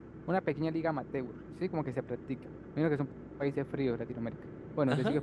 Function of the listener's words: listening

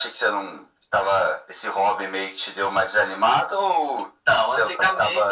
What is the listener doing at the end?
taking over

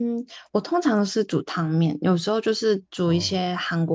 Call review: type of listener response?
listening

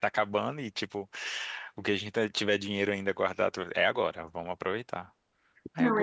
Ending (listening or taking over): taking over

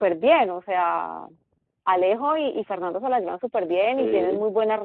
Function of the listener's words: listening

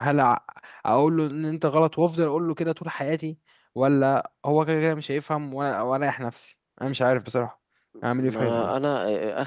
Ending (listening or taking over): taking over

